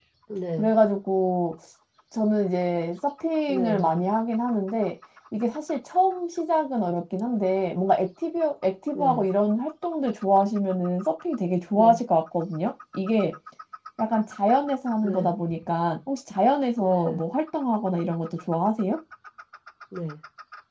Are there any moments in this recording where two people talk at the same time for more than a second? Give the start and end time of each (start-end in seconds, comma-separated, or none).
none